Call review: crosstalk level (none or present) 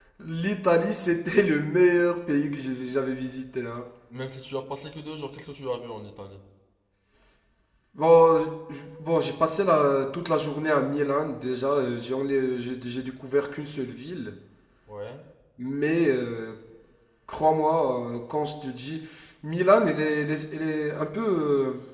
none